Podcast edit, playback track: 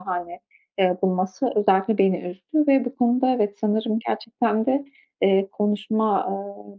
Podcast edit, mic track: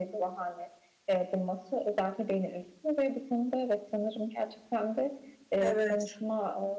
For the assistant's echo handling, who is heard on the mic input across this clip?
both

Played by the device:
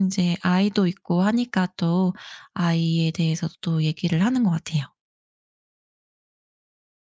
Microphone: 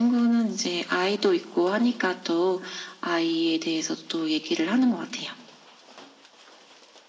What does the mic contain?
echo only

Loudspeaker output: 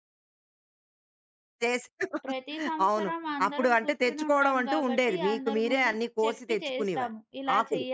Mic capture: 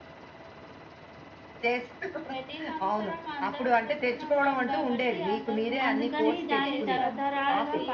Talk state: both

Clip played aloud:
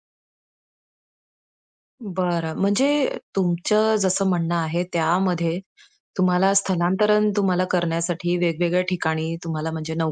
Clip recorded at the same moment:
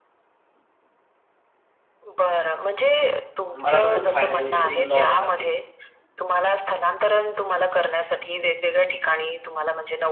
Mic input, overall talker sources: both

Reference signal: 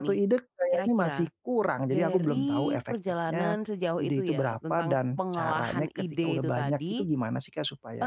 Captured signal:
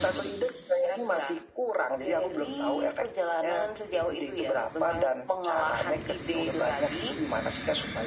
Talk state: echo only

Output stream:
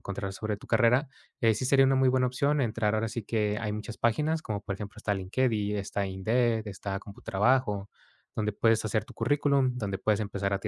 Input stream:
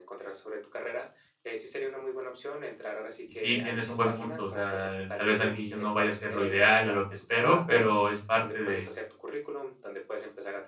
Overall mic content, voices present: both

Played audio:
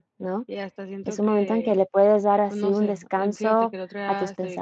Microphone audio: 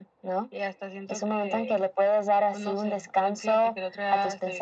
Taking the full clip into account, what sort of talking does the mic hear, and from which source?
echo only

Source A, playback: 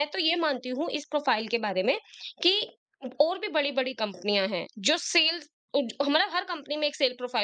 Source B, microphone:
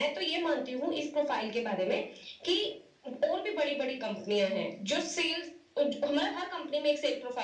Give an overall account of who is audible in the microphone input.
echo only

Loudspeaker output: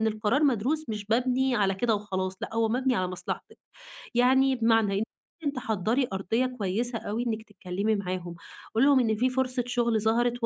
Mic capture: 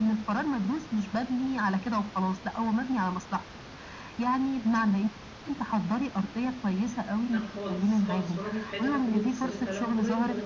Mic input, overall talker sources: both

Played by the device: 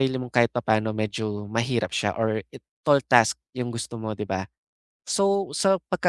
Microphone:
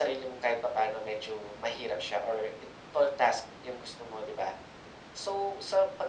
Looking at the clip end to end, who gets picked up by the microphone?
echo only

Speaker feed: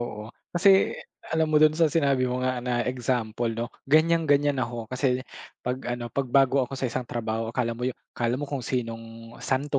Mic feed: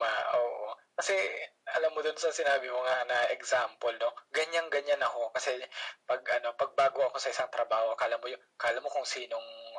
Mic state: echo only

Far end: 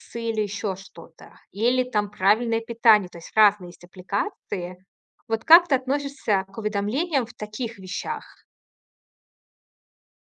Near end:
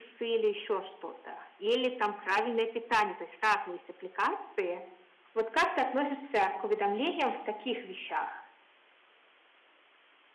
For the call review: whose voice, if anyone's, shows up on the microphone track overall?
echo only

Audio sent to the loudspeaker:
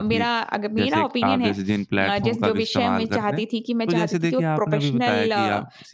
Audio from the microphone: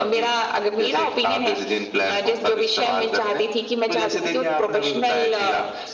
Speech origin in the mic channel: echo only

